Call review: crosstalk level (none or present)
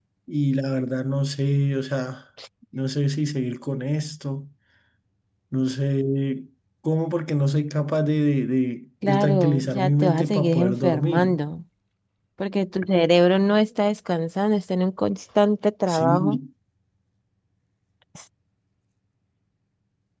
present